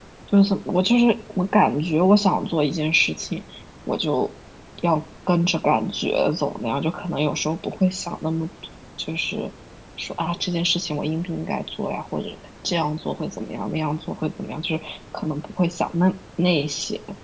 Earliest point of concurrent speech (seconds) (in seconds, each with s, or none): none